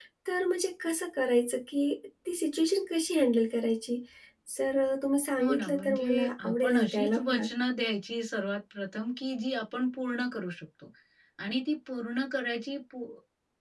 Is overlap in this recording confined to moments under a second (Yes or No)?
No